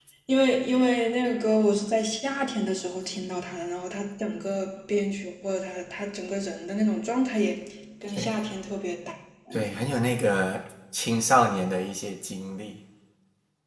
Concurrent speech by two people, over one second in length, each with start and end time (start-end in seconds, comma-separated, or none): none